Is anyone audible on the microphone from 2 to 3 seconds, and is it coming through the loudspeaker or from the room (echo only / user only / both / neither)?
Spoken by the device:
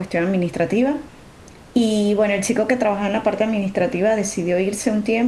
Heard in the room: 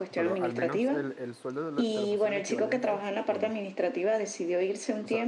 both